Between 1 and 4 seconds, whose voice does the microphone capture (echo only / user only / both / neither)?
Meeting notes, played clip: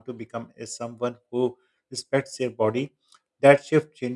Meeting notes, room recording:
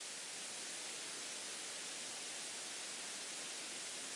neither